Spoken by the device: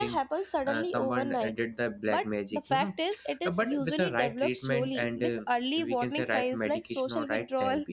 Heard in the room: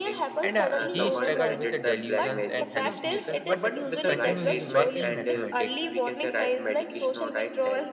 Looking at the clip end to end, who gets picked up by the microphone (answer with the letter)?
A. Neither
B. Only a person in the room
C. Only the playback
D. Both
D